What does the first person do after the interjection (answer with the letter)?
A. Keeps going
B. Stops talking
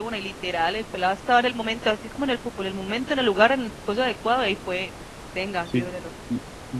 B